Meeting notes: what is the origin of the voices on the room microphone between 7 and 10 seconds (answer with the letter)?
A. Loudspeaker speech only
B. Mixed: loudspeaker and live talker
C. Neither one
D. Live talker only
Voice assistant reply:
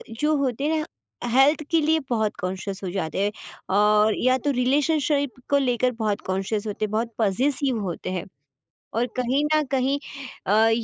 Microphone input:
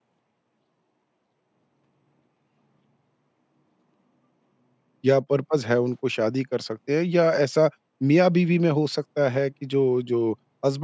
D